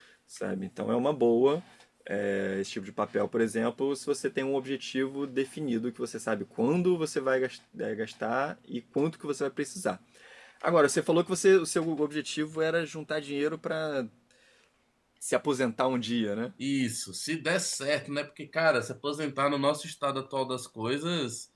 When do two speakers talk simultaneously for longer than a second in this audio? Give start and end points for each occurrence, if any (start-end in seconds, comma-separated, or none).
none